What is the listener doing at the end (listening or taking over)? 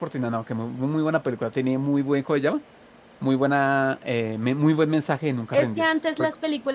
taking over